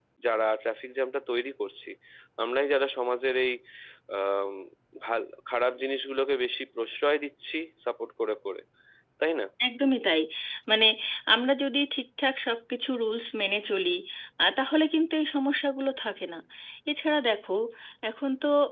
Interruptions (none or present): none